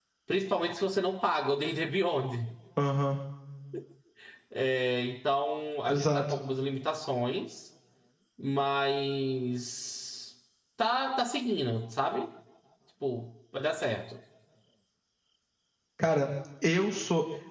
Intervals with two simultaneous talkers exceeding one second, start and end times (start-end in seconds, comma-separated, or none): none